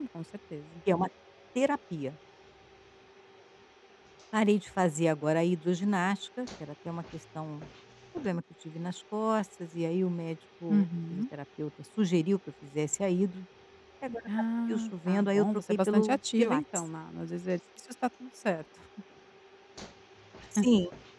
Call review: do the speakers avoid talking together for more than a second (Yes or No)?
No